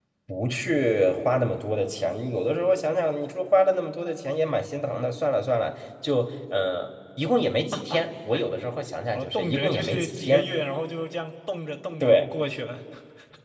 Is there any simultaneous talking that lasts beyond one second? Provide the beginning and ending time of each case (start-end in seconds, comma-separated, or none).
9.2-10.5